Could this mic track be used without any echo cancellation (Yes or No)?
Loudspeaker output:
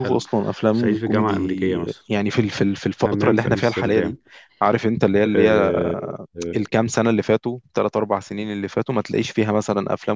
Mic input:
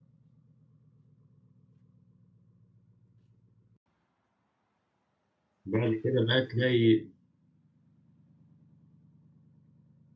Yes